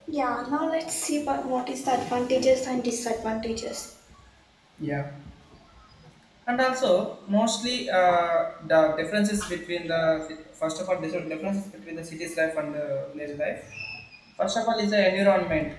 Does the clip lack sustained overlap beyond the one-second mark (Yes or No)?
Yes